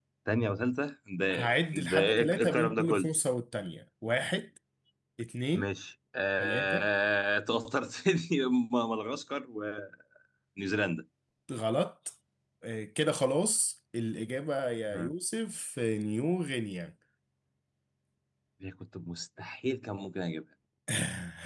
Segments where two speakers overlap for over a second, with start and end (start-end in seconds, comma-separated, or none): 1.8-3.1